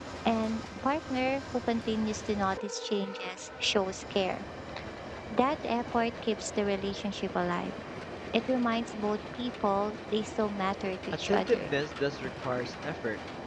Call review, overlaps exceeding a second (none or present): none